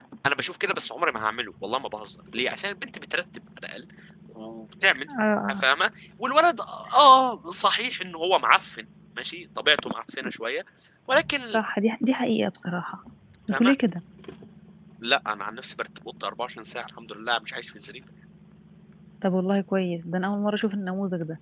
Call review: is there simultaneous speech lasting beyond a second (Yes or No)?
No